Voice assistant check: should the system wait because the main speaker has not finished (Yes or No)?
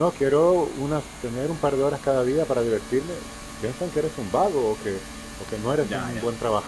Yes